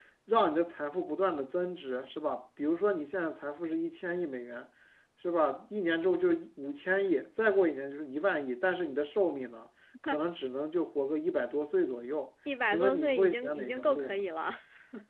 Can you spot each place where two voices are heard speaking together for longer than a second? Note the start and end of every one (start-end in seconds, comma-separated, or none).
12.7-14.2